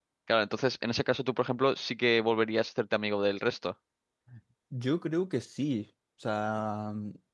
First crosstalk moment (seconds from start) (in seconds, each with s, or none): none